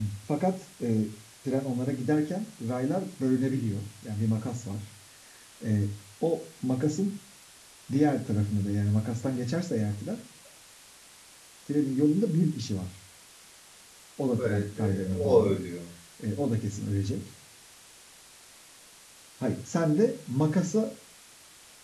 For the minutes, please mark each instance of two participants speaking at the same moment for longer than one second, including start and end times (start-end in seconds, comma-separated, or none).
14.4-15.6